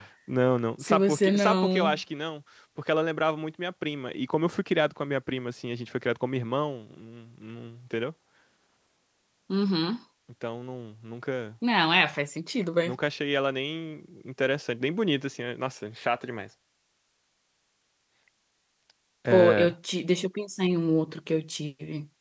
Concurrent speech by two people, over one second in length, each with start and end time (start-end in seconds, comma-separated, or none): 0.8-2.0